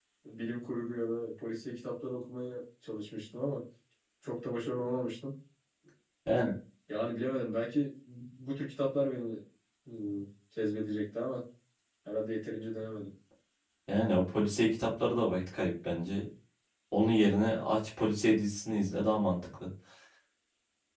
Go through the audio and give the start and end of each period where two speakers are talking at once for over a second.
none

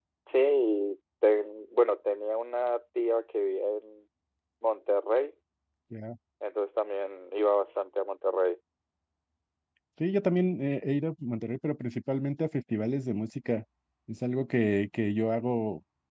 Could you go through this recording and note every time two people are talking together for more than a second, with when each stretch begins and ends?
none

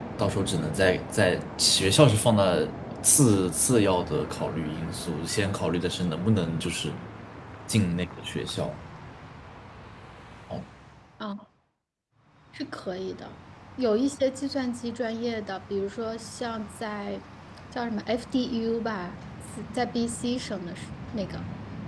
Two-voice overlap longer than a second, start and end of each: none

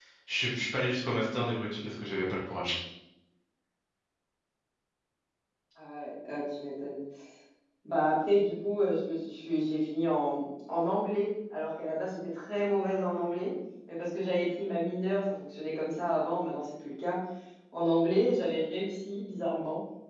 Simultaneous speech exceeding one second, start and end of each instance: none

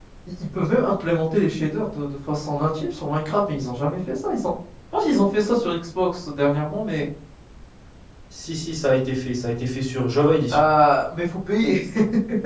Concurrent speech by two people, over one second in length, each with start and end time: none

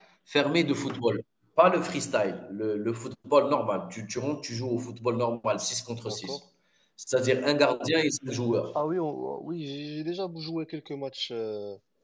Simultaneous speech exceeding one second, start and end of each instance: none

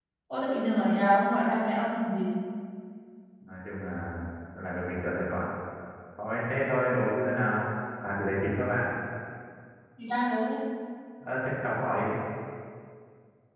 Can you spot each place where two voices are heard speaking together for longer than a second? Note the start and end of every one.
none

